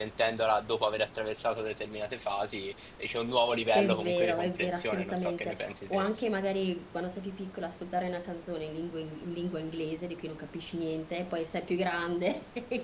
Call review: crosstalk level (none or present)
present